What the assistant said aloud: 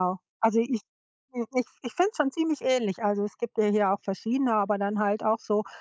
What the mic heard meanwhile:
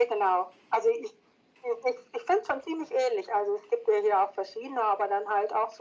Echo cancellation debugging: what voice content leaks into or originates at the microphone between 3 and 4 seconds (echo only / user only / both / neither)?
echo only